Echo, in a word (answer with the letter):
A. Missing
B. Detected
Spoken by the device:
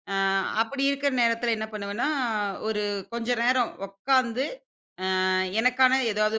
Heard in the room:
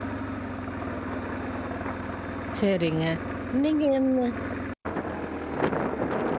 A